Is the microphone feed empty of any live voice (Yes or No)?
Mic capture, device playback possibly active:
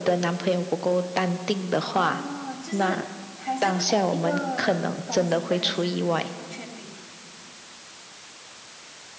No